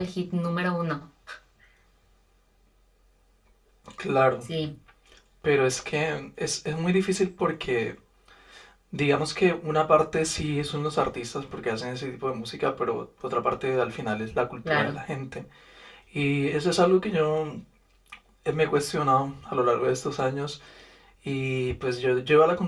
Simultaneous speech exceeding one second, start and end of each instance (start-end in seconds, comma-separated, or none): none